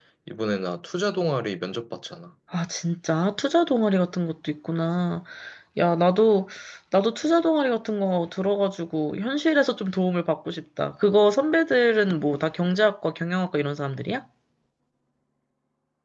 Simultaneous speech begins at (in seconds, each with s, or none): none